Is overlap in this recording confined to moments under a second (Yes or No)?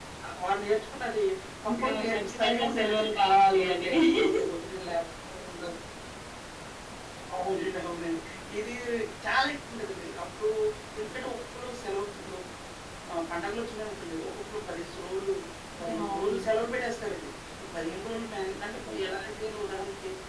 No